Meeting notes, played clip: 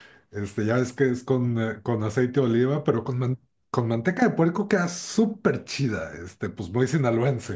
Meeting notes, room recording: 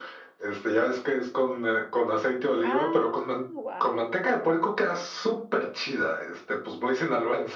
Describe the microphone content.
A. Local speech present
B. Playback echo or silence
A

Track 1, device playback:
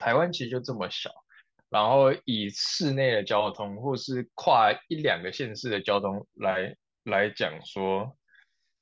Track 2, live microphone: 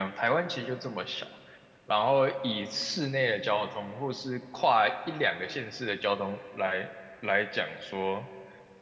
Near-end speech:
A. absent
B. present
A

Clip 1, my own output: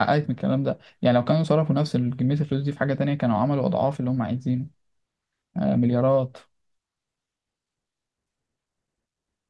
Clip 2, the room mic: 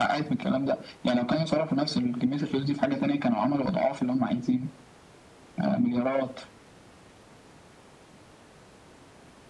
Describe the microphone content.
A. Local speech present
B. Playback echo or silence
B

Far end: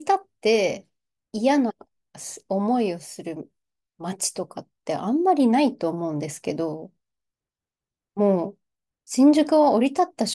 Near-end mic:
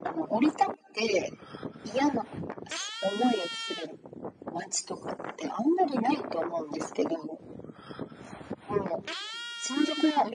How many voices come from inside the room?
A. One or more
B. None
B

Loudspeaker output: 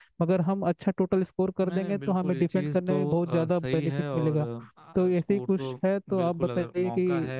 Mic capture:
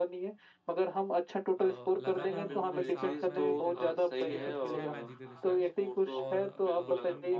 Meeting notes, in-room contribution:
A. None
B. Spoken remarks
B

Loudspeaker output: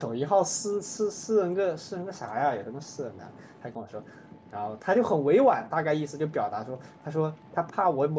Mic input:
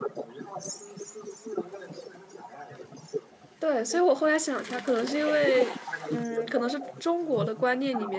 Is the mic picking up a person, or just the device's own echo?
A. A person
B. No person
A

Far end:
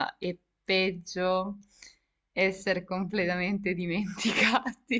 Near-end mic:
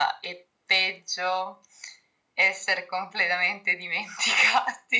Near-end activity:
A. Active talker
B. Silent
B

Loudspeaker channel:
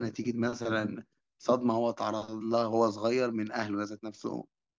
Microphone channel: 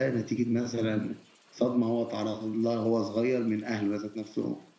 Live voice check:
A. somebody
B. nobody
B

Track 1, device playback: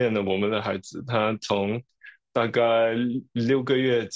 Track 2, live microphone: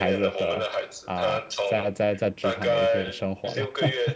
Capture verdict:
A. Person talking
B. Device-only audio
A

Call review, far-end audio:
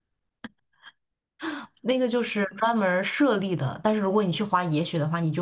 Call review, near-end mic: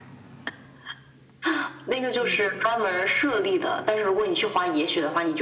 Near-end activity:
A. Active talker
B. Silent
A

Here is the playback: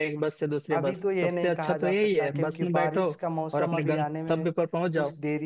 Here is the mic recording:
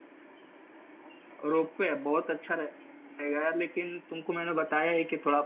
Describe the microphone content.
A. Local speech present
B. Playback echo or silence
A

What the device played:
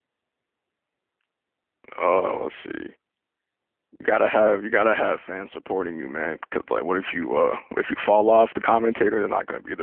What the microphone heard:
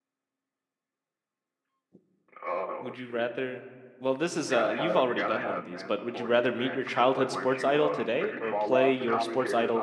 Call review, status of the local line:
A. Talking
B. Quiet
A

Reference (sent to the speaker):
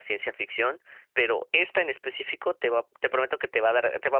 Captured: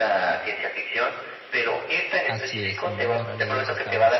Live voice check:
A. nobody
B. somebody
B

